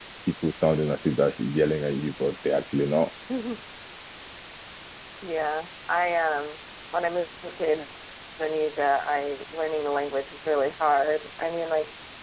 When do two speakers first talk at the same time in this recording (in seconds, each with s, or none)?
none